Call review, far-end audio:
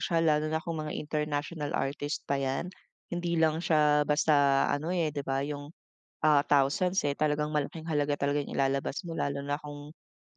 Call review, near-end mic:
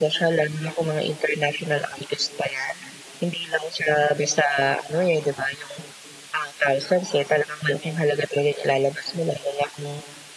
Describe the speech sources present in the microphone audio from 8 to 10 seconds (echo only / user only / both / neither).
echo only